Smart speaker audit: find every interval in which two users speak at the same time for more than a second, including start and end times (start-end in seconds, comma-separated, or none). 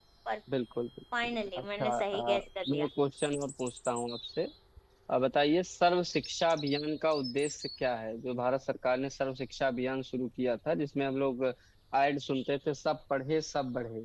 1.2-2.9